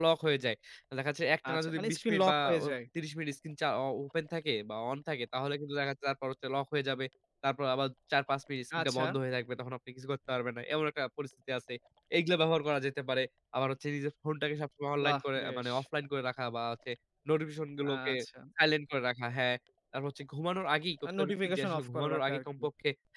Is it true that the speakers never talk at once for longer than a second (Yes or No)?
No